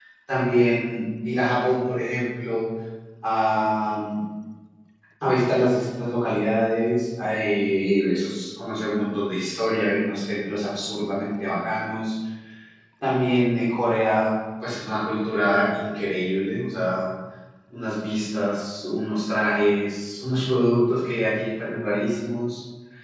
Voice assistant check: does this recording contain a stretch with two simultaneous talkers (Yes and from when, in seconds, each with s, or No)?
No